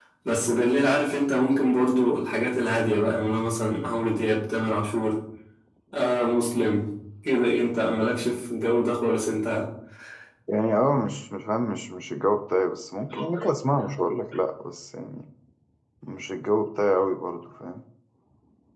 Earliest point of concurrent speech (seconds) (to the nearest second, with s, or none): none